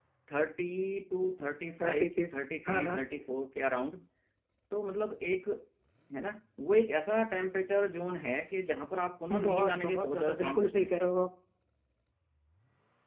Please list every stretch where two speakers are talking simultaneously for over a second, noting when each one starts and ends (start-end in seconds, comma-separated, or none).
9.4-10.9